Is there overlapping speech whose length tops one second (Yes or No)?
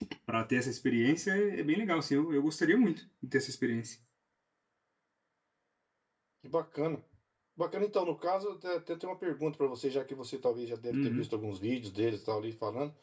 No